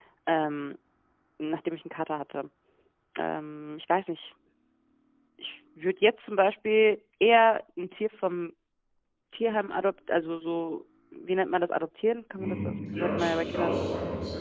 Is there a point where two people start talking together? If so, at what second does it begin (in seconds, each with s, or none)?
12.4 s